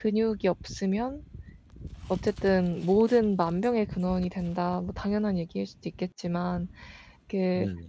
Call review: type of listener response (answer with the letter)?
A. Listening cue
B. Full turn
A